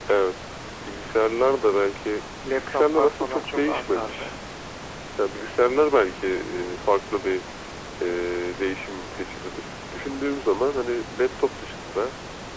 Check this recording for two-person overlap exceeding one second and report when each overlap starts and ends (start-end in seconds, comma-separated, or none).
2.5-4.3